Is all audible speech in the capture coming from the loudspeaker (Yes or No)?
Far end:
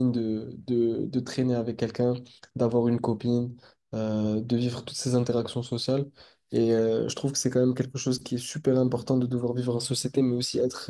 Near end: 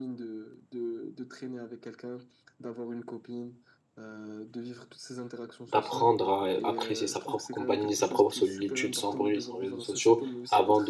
No